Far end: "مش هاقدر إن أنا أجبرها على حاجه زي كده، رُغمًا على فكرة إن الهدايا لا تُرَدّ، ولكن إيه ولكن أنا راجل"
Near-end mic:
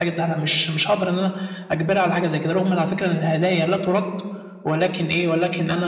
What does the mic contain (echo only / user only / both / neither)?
echo only